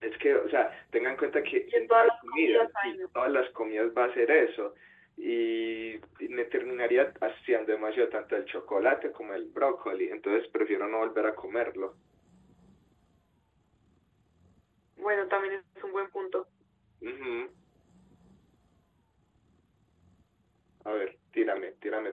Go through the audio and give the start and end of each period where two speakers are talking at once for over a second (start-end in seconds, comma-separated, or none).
1.7-2.9